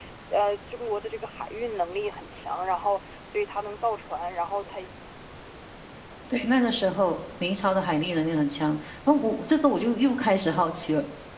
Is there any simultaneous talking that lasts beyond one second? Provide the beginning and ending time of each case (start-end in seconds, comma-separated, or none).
none